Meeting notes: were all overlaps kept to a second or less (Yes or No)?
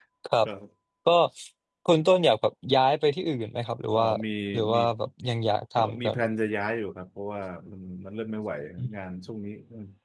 Yes